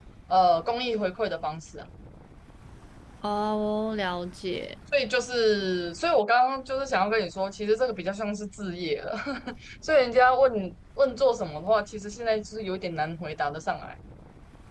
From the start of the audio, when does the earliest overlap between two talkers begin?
none

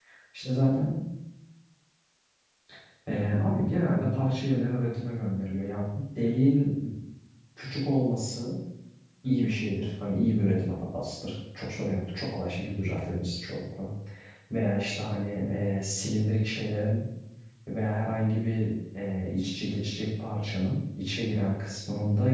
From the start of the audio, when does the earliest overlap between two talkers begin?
none

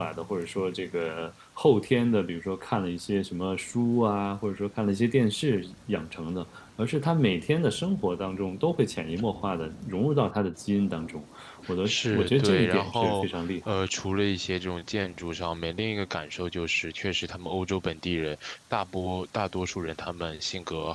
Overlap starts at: 11.8 s

